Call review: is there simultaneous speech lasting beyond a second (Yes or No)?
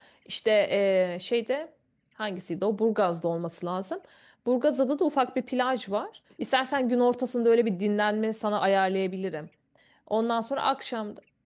No